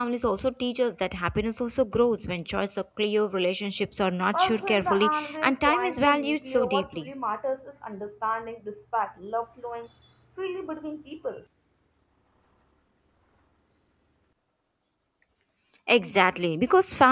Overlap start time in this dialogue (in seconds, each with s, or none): 4.3 s